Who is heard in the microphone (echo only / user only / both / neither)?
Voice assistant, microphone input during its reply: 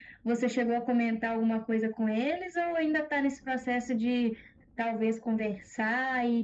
echo only